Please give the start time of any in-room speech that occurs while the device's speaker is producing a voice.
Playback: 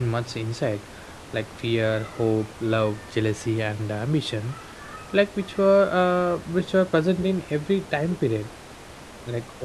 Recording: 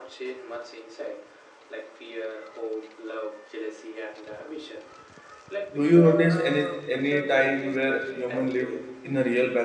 5.8 s

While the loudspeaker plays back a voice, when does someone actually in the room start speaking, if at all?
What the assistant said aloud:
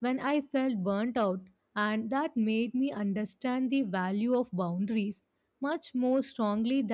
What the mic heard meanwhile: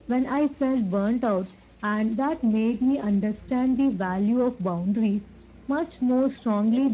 none

